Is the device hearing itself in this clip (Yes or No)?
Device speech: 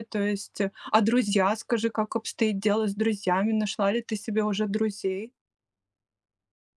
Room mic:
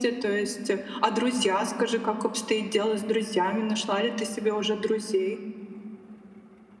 Yes